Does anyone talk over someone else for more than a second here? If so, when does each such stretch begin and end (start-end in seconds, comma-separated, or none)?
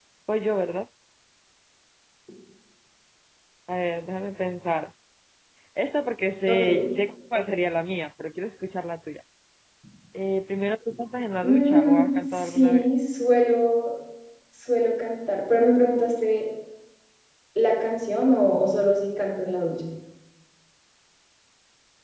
11.4-12.9